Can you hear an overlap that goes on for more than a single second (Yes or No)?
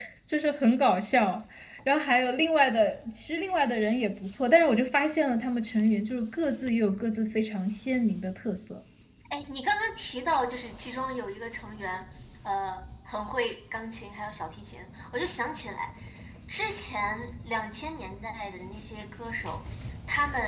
No